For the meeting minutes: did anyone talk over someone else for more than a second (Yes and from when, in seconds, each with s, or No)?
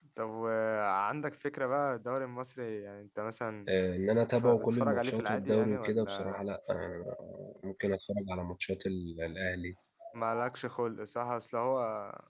Yes, from 4.3 s